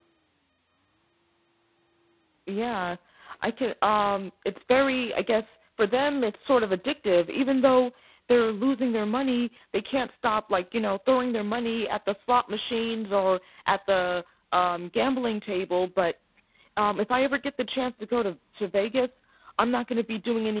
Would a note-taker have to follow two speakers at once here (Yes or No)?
No